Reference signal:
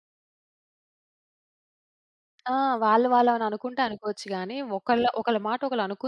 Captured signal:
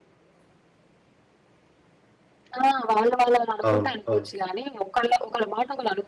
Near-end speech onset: 4 s

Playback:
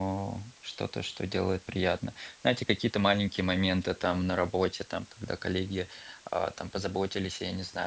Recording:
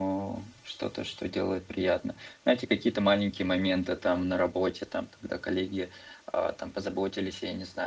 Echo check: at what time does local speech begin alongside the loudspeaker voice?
none

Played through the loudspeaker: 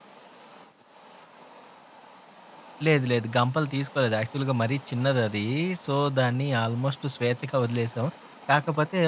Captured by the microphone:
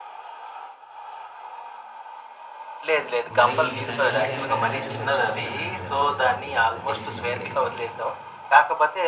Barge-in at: 3 s

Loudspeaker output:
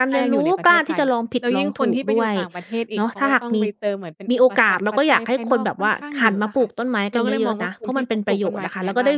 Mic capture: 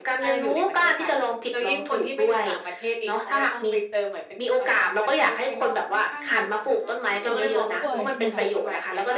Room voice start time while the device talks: 7 s

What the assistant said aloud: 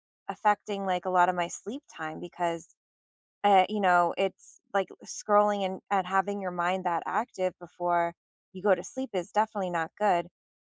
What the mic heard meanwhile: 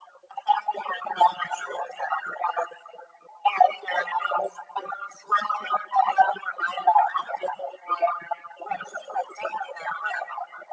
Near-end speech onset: none

